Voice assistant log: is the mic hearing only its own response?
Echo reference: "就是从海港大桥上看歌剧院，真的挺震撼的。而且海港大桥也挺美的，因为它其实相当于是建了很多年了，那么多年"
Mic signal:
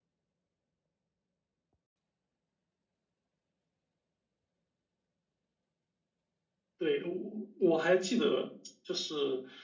No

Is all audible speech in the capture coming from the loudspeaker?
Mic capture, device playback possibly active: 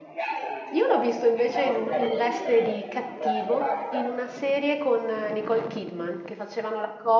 No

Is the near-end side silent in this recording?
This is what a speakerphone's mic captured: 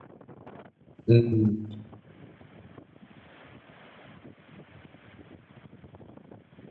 No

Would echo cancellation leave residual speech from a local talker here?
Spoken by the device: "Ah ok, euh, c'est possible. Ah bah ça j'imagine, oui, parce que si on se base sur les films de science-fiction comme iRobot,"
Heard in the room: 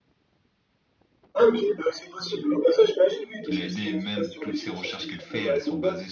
Yes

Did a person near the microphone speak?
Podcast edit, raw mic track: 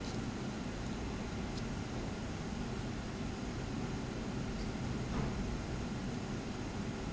No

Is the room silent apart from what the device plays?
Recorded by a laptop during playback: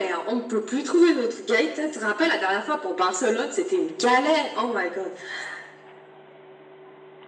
Yes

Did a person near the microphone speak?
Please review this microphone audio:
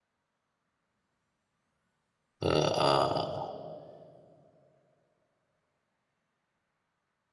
Yes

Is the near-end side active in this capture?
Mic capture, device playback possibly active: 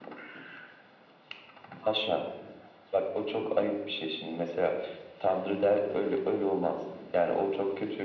No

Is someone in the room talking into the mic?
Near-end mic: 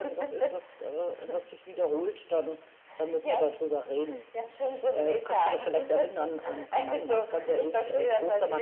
No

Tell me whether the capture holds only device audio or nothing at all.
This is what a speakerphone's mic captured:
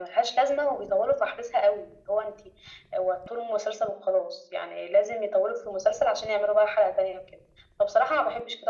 Yes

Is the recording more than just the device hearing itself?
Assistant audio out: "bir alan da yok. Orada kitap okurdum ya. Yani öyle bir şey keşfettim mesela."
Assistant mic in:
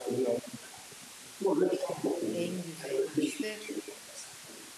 Yes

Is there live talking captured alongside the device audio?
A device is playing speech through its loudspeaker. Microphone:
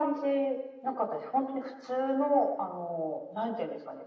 No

